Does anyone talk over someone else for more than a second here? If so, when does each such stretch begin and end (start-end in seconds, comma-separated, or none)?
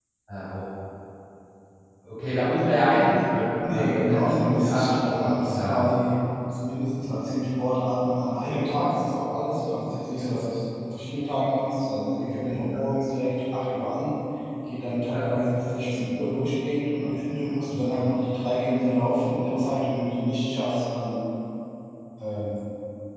3.6-5.8